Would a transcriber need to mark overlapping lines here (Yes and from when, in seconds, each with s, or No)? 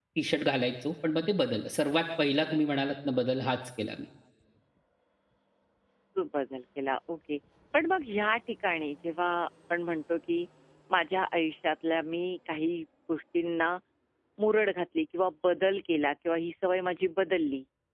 No